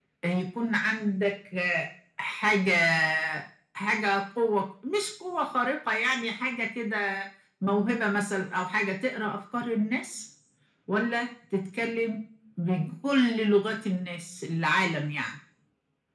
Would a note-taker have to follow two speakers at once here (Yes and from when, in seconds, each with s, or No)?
No